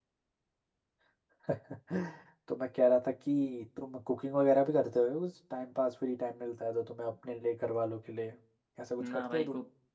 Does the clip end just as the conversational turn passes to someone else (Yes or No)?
Yes